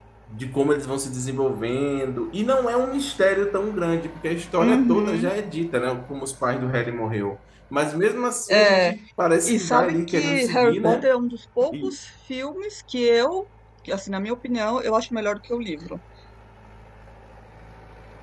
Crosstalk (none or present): present